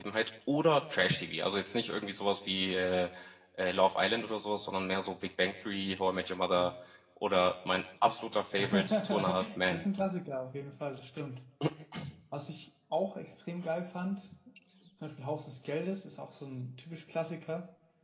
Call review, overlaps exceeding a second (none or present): present